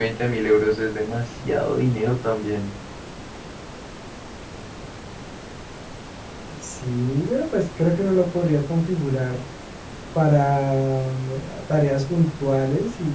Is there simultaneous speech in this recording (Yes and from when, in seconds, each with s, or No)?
No